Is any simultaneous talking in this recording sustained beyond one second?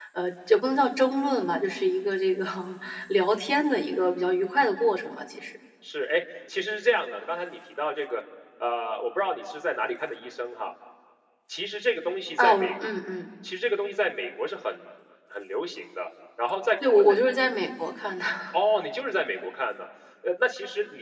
No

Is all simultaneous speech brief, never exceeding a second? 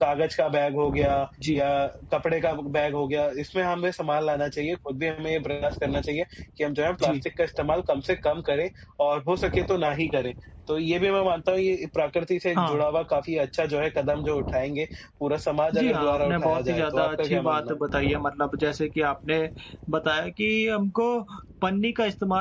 No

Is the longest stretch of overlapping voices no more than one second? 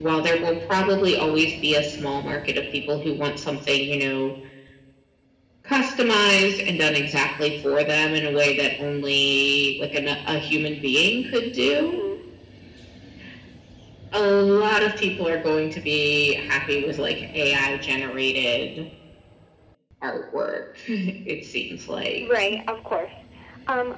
Yes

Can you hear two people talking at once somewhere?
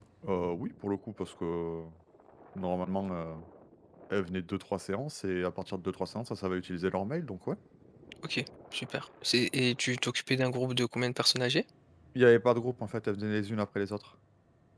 No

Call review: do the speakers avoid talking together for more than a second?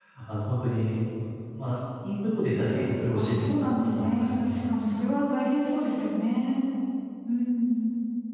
No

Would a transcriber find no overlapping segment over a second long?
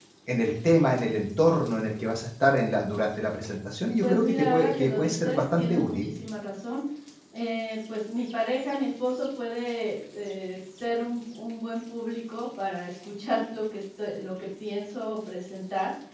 No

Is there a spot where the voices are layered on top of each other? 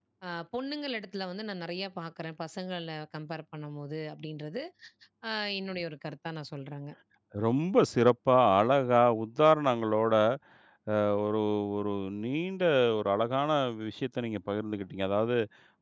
No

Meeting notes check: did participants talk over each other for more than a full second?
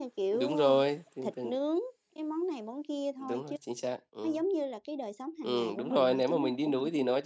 Yes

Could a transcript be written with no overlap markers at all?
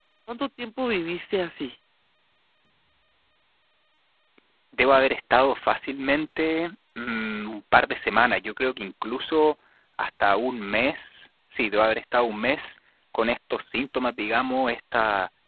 Yes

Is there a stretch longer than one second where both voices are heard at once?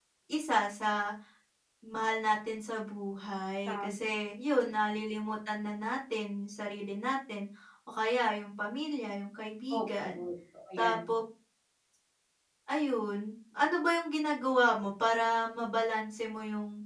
No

